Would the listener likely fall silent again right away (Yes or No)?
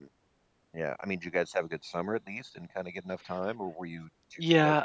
No